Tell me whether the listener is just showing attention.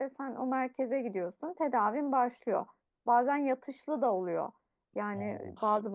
Yes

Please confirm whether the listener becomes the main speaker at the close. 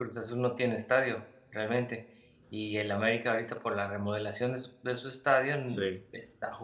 No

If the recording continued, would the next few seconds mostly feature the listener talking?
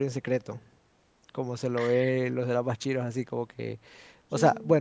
No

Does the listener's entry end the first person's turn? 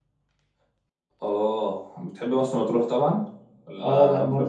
Yes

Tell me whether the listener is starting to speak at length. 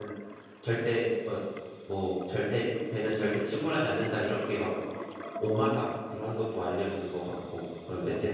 Yes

